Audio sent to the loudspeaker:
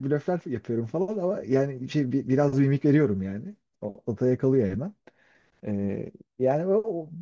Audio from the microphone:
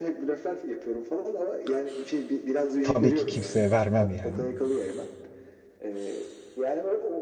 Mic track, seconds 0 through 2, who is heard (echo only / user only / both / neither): echo only